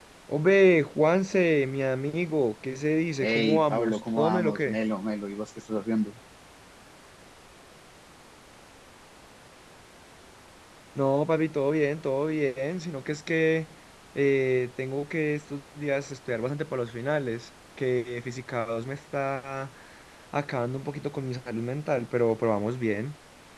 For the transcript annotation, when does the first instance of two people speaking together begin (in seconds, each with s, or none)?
3.2 s